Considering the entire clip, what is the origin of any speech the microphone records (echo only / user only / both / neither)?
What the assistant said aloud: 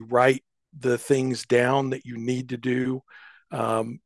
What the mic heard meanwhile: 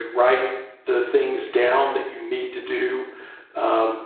echo only